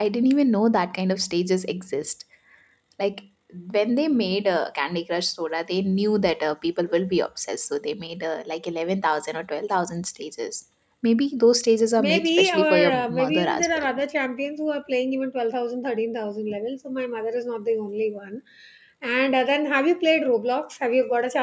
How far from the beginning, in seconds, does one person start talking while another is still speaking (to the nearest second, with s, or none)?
12 s